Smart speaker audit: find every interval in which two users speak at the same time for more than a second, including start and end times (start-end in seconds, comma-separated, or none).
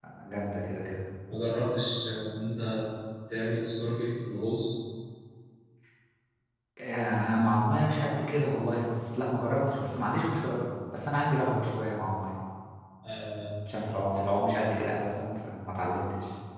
none